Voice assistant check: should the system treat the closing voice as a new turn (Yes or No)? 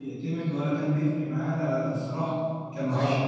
Yes